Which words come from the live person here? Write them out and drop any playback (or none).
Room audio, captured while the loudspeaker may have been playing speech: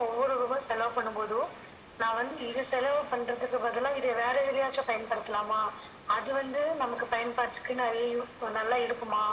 none